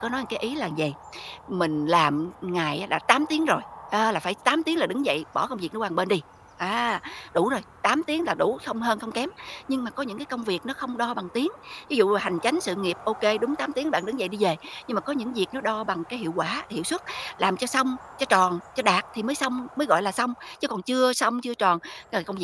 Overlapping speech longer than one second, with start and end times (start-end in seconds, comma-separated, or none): none